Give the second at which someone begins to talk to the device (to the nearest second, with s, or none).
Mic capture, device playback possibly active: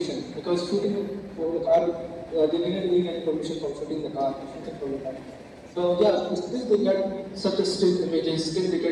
none